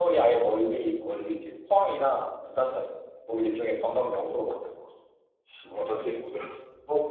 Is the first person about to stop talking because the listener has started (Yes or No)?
Yes